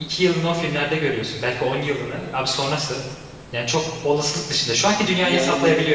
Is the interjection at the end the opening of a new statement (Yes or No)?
Yes